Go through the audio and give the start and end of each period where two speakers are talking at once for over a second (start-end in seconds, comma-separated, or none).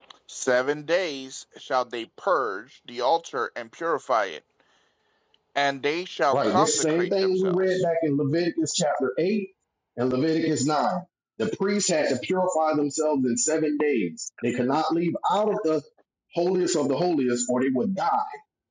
6.3-7.8